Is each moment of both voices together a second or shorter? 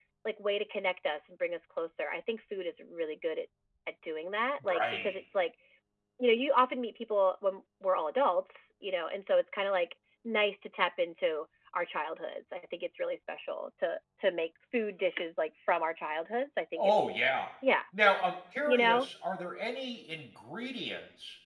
Yes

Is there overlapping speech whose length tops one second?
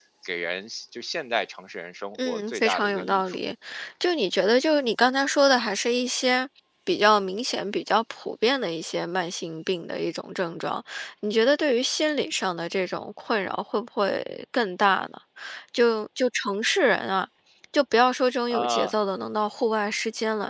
Yes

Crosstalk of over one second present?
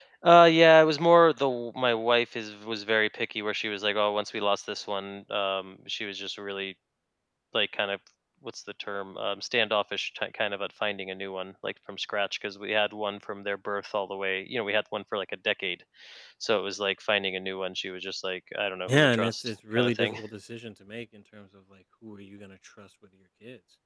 Yes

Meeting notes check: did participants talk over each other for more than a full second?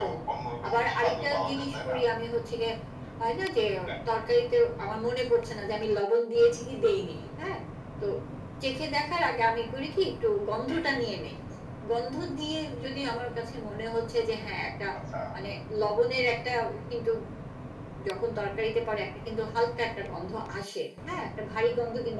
Yes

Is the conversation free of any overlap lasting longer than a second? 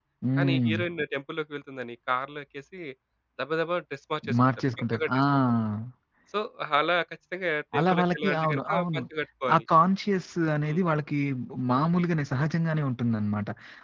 No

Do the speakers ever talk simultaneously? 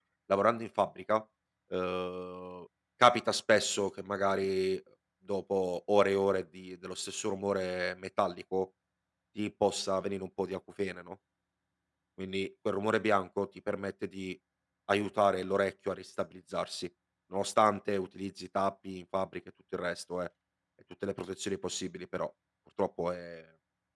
No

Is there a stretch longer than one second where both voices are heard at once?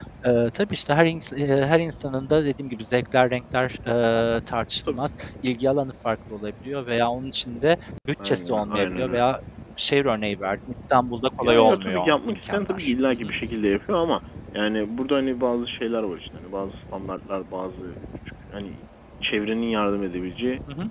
Yes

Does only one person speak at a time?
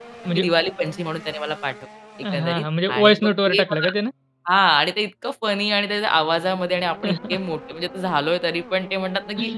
No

